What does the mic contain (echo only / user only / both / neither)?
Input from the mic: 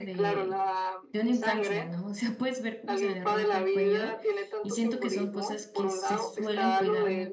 both